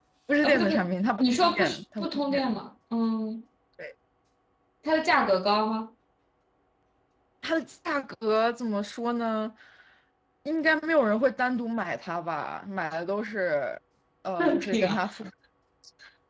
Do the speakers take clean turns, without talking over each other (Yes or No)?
No